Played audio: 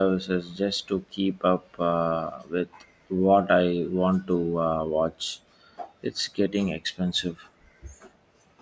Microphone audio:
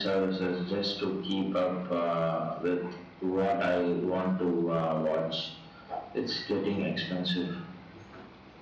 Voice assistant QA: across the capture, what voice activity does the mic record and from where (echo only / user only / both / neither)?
echo only